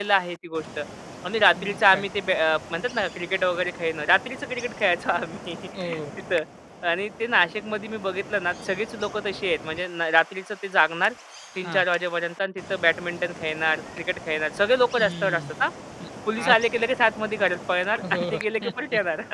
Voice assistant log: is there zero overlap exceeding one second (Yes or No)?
Yes